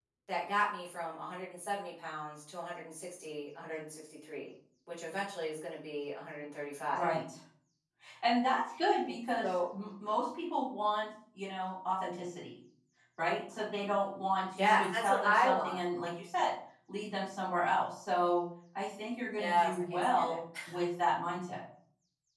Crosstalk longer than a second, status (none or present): present